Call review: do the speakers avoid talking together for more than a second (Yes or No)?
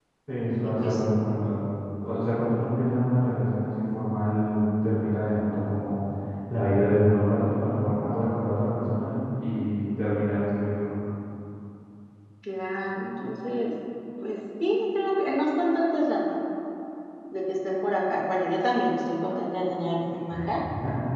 Yes